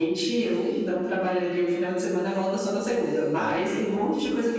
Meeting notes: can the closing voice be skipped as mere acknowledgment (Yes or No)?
Yes